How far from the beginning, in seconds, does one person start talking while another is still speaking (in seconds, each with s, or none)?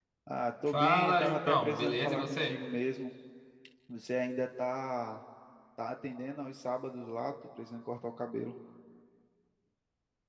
0.7 s